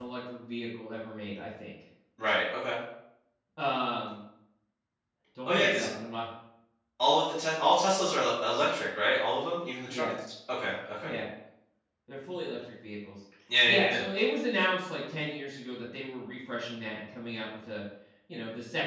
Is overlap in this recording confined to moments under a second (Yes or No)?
Yes